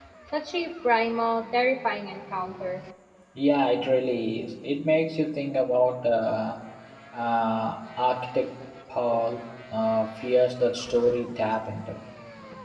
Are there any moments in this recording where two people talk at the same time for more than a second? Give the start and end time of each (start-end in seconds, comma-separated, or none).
none